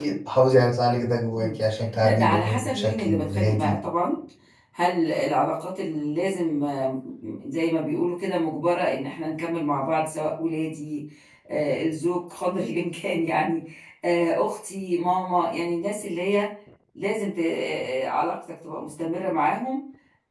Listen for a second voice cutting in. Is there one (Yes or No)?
Yes